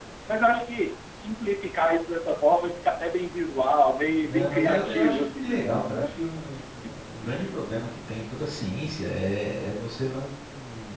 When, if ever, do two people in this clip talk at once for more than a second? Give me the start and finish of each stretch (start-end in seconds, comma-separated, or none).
4.2-6.2